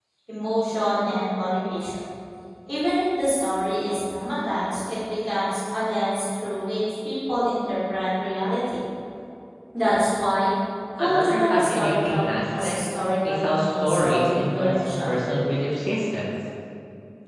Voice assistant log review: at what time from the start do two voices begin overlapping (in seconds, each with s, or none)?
11.0 s